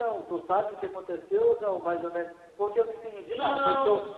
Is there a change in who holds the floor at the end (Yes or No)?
No